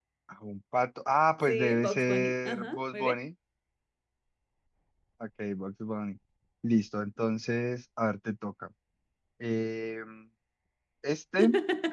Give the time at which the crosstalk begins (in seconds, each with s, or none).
1.5 s